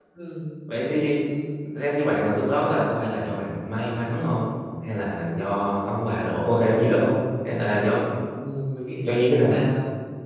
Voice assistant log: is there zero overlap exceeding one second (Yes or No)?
Yes